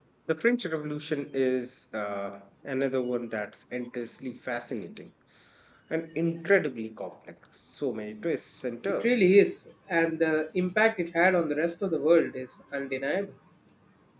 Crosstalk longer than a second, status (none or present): none